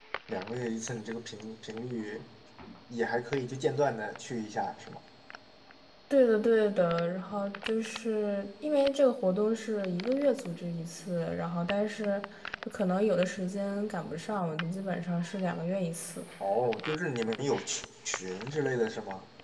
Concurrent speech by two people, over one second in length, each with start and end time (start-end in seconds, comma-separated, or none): none